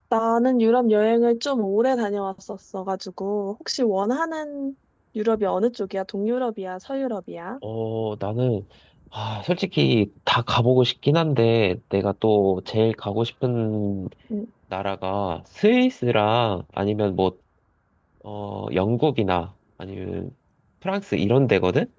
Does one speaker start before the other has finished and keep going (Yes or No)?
No